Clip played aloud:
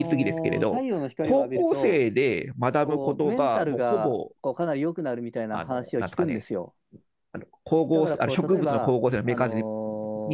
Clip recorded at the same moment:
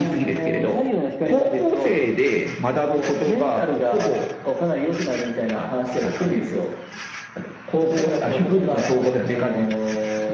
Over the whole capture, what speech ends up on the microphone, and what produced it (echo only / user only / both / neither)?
echo only